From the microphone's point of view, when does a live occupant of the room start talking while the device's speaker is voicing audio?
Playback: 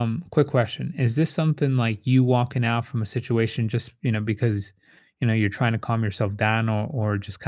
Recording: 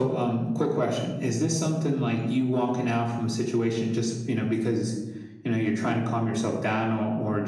none

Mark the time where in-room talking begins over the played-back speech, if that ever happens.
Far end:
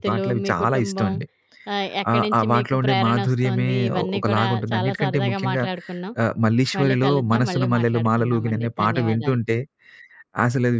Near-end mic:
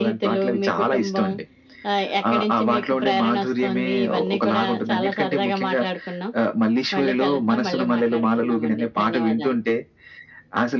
none

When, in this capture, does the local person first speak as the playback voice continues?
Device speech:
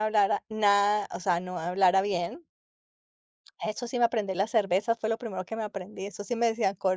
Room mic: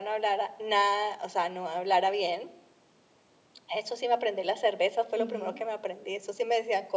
5.2 s

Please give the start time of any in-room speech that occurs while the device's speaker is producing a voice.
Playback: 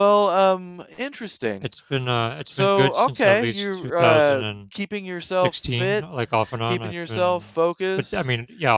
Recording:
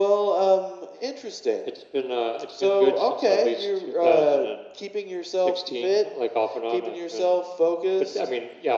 none

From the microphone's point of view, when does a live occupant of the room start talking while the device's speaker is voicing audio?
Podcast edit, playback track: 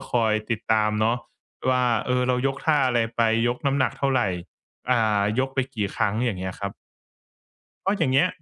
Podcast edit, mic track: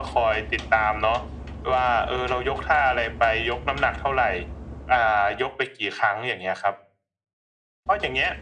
none

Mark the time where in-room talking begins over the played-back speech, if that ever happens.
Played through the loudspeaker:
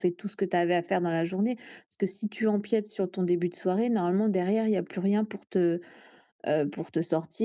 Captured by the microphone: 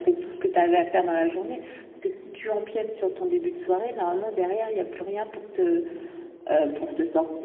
none

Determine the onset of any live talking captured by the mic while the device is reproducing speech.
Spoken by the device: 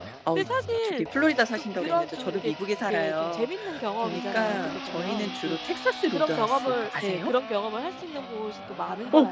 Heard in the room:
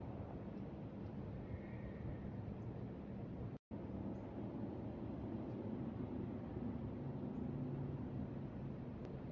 none

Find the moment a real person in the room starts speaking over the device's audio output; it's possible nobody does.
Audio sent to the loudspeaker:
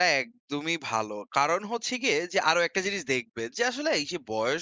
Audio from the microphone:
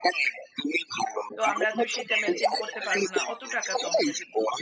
1.4 s

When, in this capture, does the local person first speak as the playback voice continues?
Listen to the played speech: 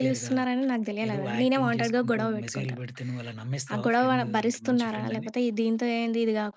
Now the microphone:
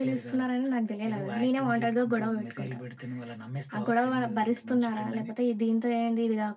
none

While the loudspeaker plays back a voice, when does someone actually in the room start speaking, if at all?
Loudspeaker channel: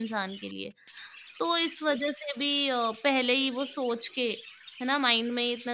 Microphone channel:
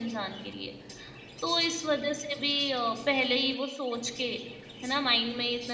none

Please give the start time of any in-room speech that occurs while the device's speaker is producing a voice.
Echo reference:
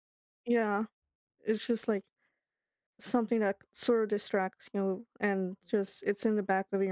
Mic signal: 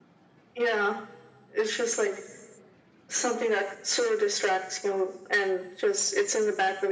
none

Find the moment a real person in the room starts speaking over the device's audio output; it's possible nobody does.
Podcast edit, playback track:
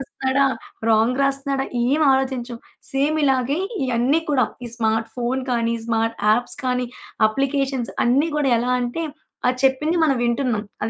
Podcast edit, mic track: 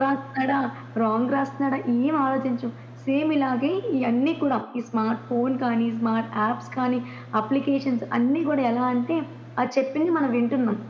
none

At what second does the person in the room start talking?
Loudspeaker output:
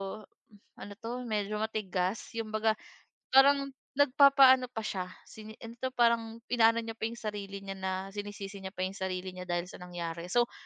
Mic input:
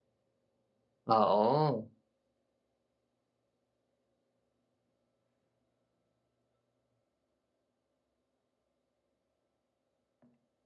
1.2 s

